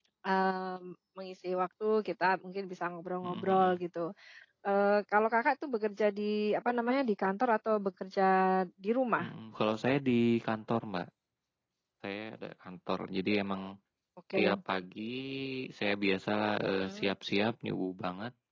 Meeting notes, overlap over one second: none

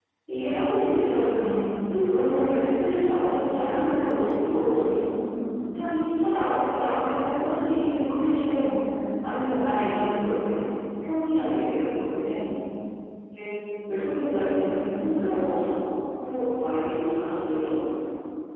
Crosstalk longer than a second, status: none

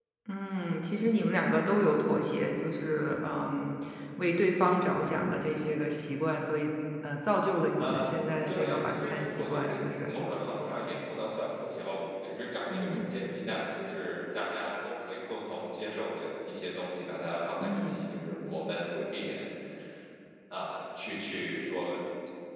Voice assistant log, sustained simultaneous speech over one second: present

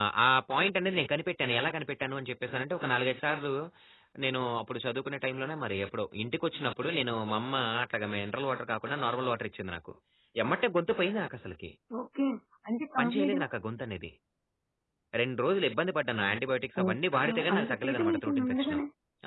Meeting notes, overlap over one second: present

